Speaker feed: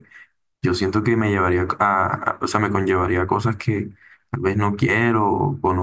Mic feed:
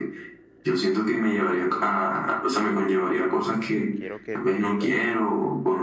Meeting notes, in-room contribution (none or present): present